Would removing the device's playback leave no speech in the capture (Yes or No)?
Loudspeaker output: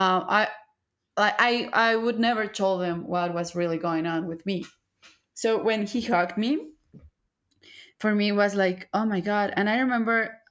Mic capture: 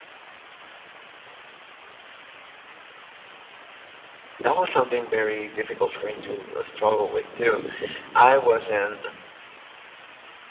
No